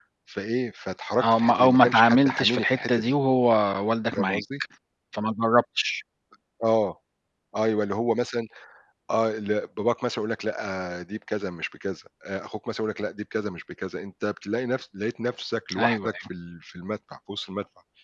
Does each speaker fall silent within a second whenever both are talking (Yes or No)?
No